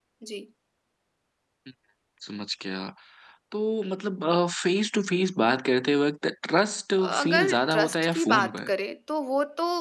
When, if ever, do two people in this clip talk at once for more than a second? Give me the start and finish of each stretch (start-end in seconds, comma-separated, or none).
7.0-8.7